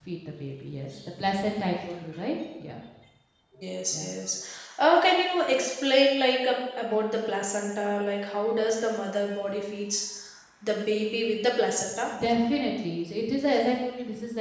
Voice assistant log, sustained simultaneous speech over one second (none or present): none